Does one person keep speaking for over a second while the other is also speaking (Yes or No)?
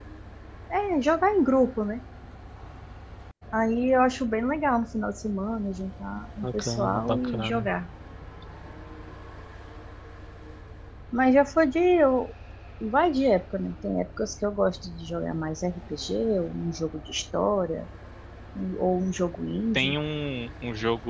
Yes